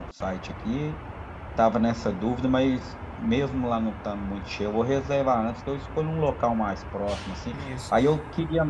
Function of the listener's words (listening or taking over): listening